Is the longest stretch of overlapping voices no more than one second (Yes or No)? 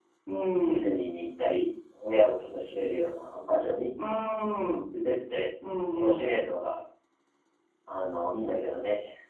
Yes